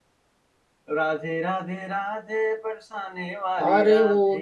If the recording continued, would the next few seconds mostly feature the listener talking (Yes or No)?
Yes